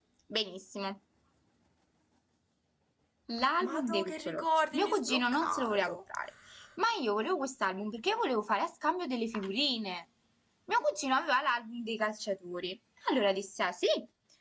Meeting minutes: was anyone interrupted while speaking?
Yes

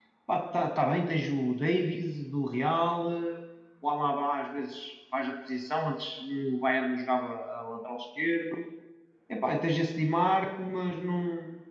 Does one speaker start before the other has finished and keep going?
No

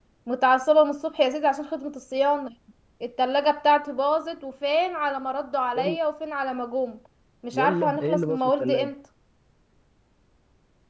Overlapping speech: Yes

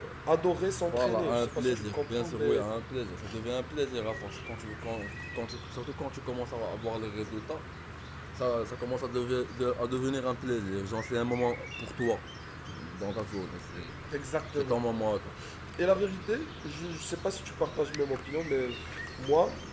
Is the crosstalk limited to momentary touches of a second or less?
No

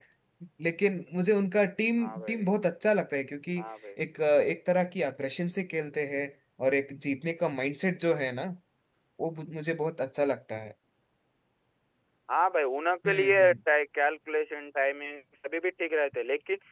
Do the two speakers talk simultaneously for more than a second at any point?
No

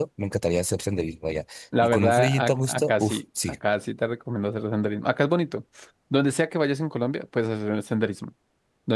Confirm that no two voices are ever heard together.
No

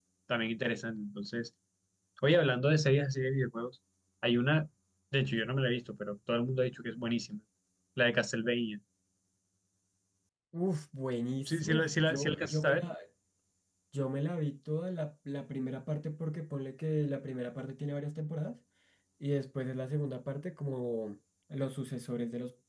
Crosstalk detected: Yes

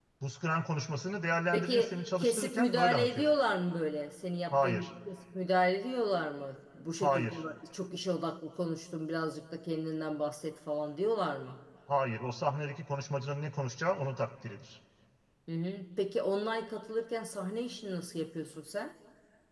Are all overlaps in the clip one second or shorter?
No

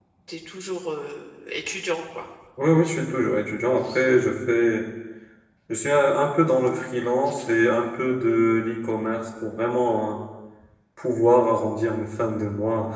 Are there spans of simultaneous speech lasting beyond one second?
No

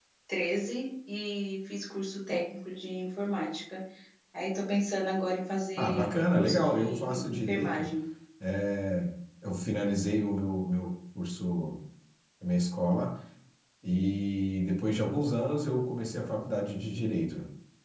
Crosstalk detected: Yes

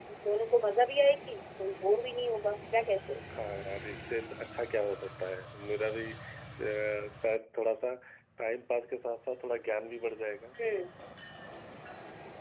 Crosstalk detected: No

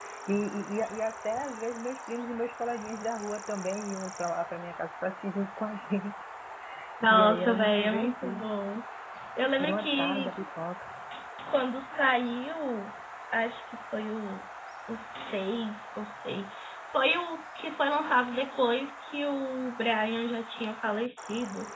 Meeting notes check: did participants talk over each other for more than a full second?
Yes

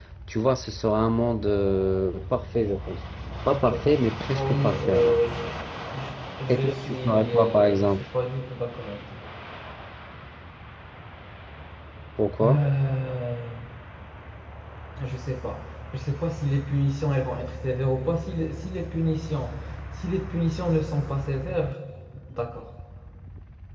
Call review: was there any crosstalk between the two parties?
Yes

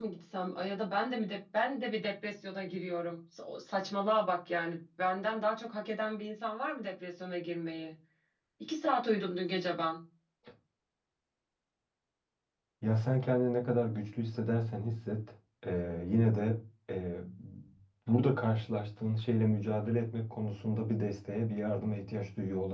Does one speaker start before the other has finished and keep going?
No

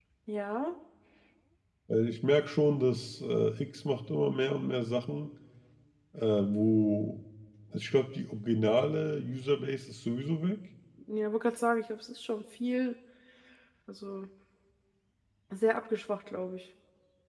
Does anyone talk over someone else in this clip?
No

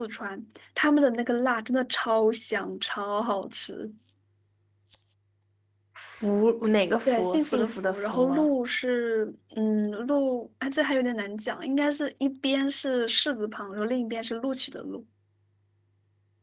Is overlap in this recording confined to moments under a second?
No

